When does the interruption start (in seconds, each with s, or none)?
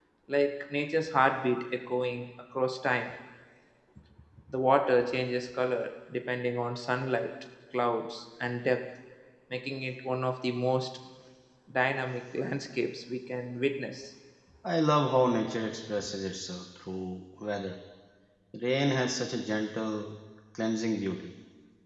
none